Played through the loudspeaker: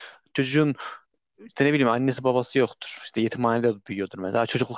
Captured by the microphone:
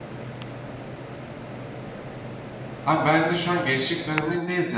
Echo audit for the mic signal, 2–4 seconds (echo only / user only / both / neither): user only